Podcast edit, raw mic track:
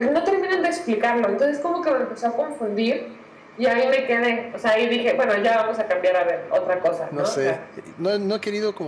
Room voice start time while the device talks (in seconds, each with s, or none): 7.1 s